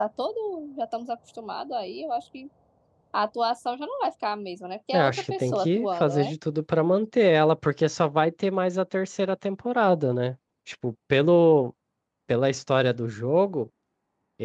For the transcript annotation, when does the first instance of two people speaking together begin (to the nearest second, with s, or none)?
5 s